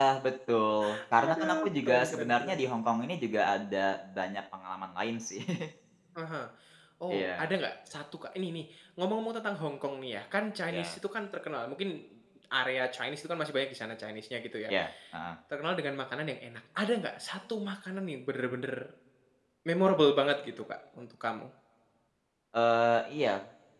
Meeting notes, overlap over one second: present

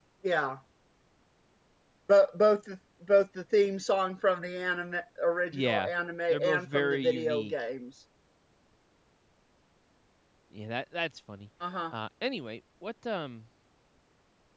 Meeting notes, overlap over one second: present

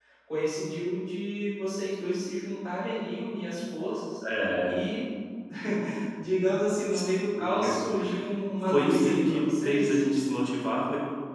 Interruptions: present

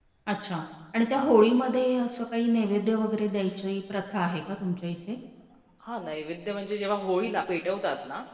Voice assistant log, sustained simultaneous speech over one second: none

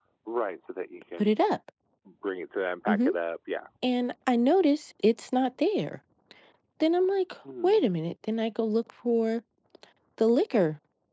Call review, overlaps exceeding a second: none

